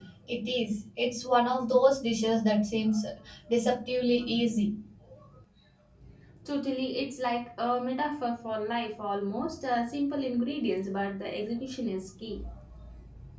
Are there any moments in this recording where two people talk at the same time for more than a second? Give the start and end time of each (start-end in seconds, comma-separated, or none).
none